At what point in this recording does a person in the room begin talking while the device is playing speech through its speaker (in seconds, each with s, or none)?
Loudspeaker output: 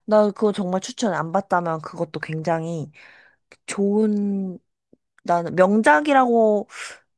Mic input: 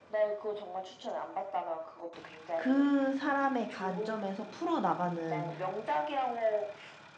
2.5 s